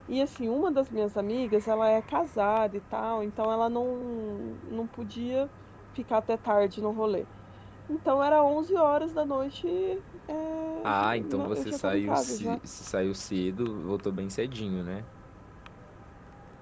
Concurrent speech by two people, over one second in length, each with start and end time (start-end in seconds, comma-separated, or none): 10.8-12.6